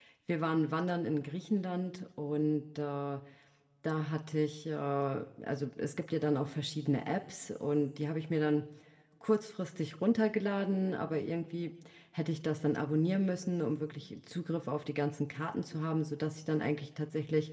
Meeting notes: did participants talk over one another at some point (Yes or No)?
No